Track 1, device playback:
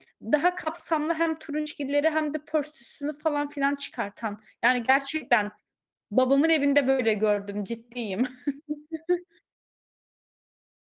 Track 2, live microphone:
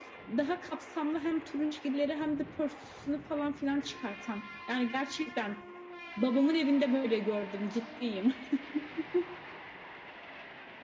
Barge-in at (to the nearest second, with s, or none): none